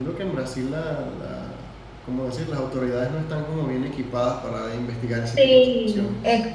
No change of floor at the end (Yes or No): No